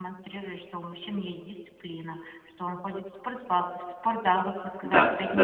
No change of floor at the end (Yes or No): Yes